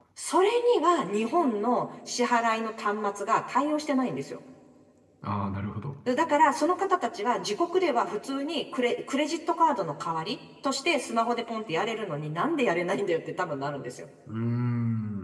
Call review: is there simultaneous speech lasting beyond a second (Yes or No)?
No